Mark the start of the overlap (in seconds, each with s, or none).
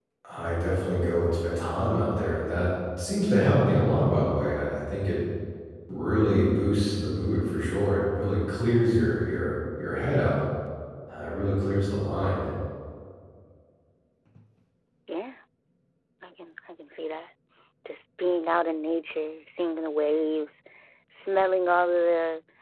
none